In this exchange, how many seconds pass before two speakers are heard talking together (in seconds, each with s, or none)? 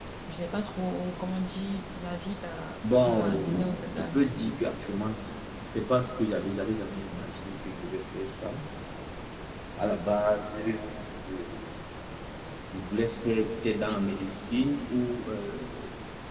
2.8 s